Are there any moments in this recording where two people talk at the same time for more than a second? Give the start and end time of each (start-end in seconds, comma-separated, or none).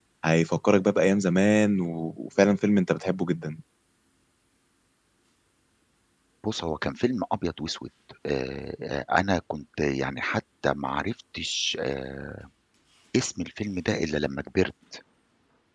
none